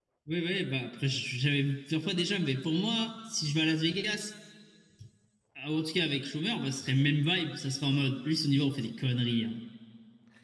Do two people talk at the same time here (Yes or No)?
No